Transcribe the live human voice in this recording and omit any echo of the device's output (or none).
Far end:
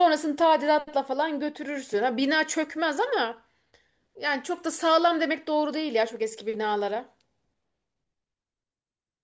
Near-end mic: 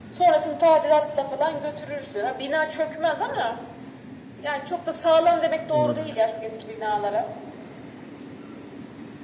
Olabilir.